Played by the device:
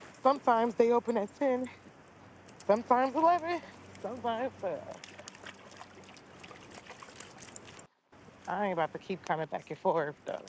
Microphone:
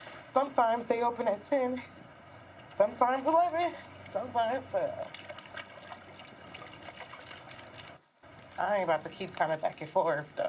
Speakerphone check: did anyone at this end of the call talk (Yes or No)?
No